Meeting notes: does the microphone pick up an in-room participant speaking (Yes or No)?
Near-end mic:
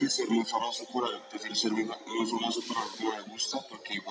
No